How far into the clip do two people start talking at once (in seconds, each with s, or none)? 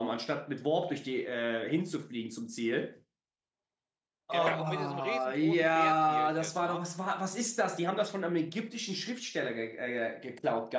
4.3 s